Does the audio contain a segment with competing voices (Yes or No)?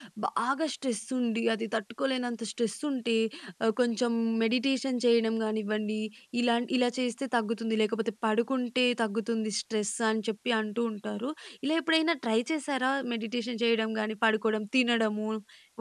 No